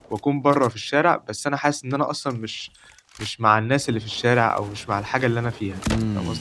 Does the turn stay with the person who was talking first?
No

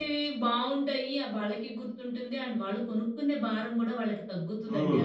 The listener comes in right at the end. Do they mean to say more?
Yes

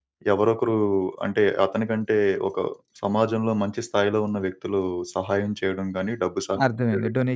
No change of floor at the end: No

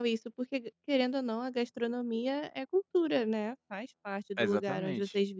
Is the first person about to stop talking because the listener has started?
Yes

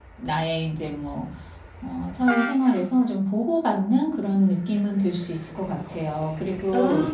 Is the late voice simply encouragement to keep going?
Yes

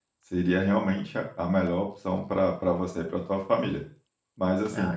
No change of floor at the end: Yes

